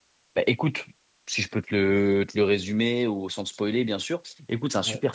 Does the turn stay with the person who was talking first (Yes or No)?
Yes